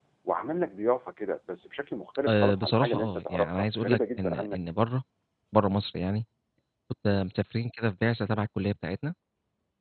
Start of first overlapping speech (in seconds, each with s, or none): 2.3 s